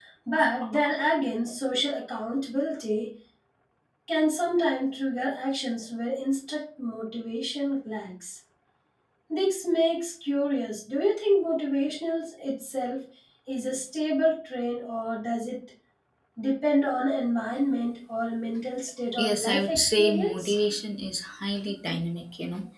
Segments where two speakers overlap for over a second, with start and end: 19.2-20.5

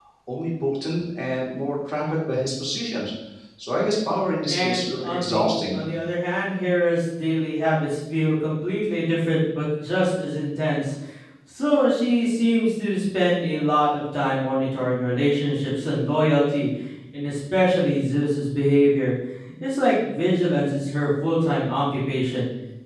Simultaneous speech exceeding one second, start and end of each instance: 4.5-5.8

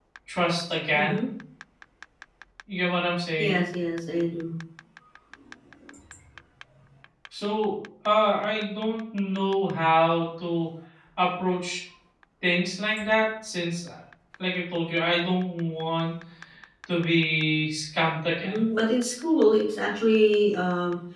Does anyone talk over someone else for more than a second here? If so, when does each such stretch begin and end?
none

